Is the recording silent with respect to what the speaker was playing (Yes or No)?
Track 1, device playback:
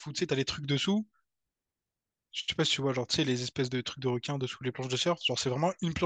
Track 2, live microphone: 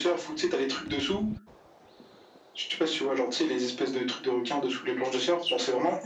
No